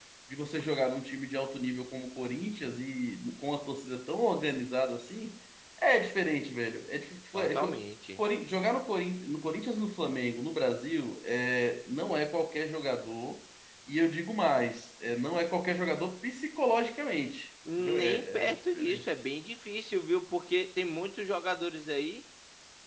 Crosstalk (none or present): present